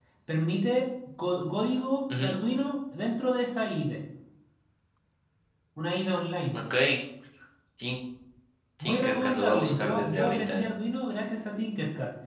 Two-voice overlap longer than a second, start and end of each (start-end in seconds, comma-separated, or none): 8.8-10.7